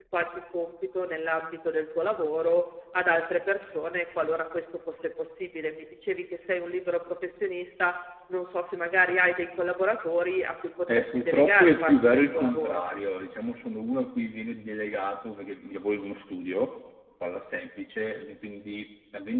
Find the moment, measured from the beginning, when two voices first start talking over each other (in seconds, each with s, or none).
10.9 s